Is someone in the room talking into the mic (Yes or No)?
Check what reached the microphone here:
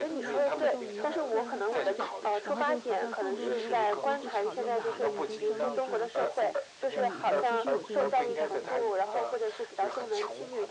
Yes